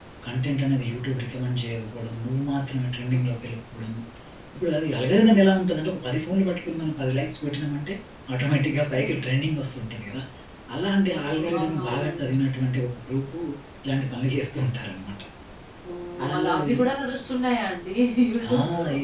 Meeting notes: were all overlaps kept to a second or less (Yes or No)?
No